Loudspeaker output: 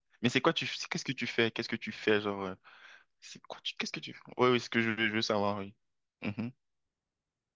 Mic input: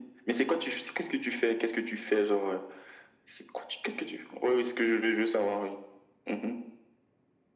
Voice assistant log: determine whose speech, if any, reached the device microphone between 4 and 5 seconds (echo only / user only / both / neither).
echo only